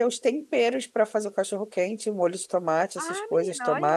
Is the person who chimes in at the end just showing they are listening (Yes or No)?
No